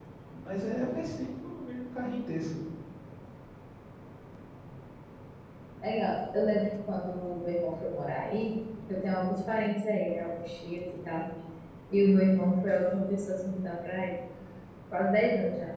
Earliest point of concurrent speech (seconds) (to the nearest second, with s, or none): none